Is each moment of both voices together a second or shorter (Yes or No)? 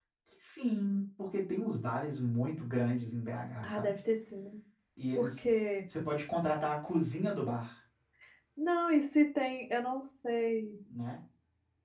Yes